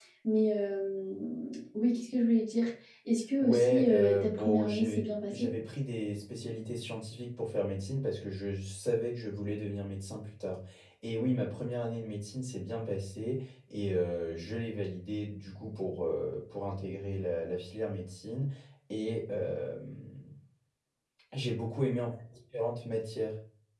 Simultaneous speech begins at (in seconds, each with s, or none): 3.4 s